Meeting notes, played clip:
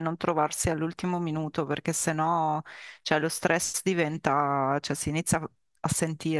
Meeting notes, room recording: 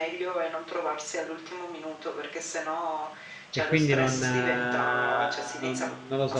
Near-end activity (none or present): present